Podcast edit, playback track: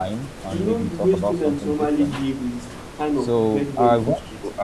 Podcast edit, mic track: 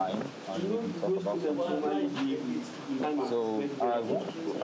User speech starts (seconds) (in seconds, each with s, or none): 1.3 s